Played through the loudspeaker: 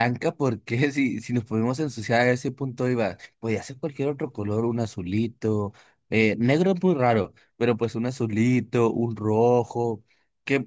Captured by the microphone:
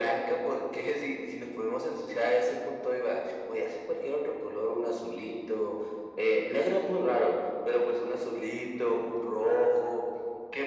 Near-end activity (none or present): none